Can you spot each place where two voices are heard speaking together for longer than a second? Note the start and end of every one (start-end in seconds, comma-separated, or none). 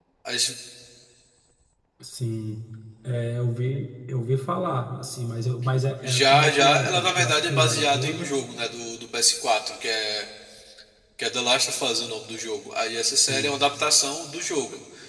6.0-8.3